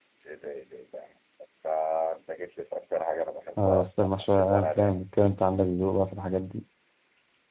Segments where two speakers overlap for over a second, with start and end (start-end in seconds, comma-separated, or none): 3.6-5.0